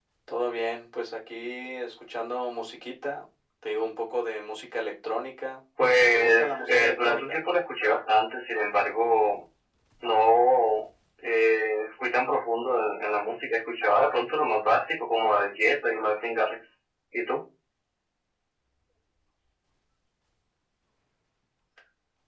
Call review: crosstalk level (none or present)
present